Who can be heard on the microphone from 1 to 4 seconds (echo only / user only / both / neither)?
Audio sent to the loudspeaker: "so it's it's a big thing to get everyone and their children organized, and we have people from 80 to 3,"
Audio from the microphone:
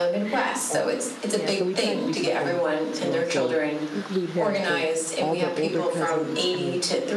both